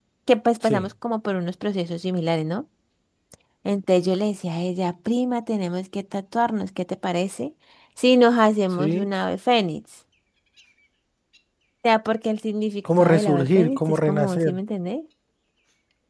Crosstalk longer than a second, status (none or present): present